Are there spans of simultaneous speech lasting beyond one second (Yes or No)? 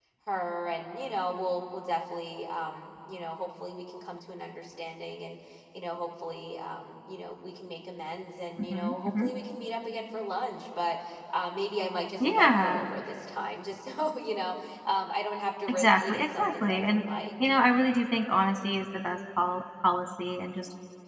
Yes